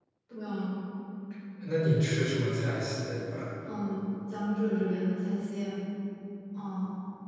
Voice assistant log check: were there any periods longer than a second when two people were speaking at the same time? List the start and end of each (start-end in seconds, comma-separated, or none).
none